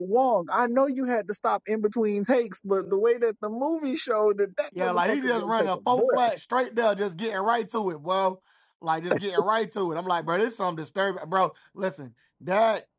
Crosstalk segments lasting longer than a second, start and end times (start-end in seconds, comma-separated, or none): 4.8-6.2